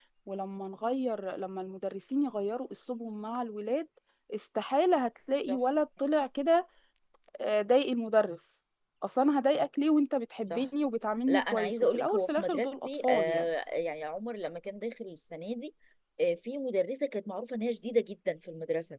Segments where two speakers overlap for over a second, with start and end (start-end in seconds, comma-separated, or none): 11.3-13.4